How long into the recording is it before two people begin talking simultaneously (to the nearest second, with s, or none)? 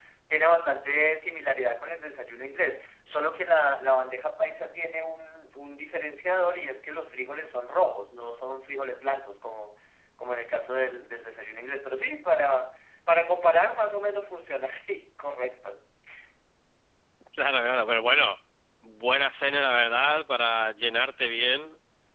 none